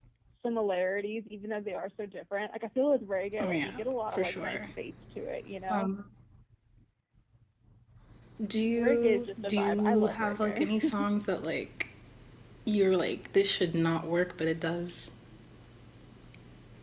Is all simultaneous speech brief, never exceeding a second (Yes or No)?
No